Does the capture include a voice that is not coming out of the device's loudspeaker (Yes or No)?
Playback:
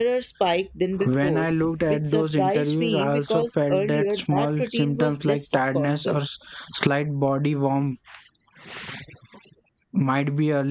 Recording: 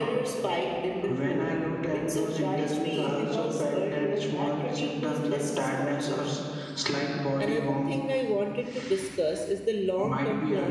Yes